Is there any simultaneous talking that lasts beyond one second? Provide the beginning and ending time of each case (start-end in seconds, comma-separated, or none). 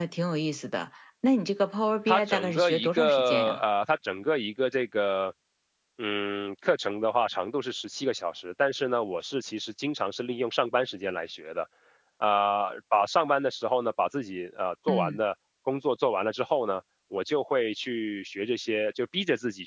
2.1-3.6